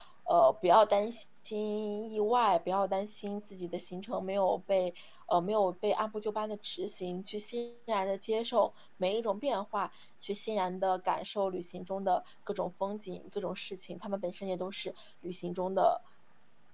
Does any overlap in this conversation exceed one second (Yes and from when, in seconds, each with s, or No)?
No